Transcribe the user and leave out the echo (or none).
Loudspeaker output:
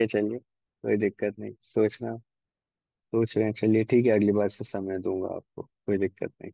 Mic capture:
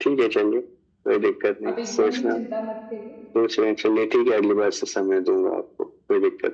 आप एकदम भी चिंता मत करिए